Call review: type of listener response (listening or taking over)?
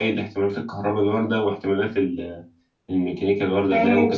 taking over